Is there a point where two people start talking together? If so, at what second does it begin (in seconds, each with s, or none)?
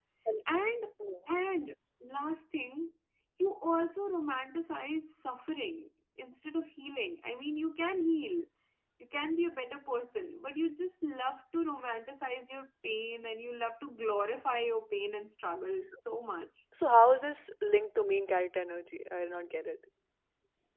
none